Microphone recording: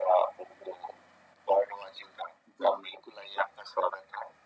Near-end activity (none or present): present